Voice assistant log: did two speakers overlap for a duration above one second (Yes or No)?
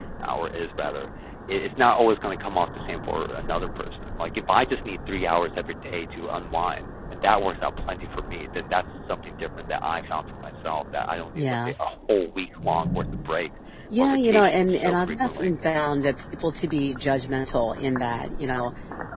Yes